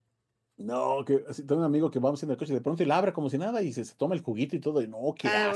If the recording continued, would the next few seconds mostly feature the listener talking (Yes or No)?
Yes